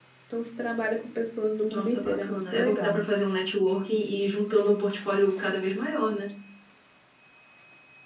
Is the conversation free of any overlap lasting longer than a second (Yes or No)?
No